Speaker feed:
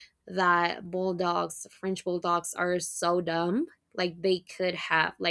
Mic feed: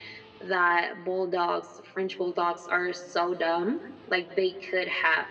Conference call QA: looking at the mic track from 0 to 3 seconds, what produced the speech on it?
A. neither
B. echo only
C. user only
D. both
B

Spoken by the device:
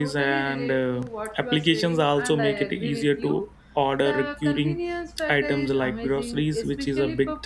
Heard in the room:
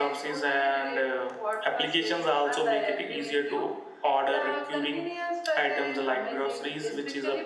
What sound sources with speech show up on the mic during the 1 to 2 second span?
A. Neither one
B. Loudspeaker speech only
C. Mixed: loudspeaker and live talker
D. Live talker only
B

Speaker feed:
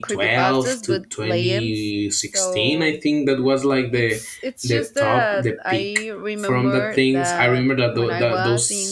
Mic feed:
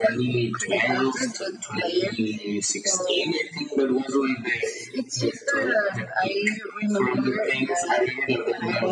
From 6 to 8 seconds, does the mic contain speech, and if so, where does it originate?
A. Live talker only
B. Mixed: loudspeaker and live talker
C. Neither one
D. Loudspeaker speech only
D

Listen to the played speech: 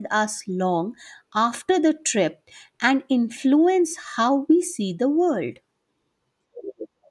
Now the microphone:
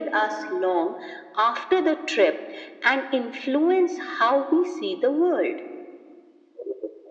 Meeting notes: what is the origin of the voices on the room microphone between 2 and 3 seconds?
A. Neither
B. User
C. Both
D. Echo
D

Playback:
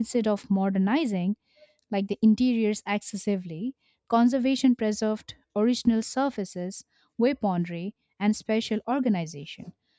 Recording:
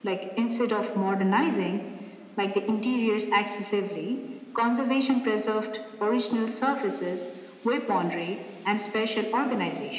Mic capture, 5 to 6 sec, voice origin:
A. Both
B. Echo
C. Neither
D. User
B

